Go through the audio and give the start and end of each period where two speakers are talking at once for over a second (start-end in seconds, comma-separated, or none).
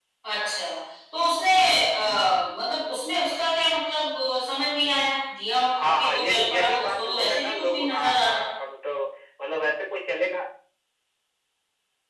5.8-8.4